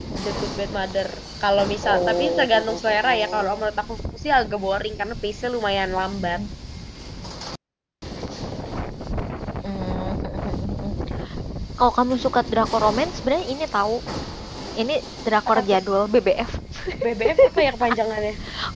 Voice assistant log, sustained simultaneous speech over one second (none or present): present